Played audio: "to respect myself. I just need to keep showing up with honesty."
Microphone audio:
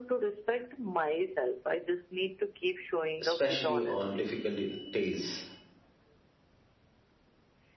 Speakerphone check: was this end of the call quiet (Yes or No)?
No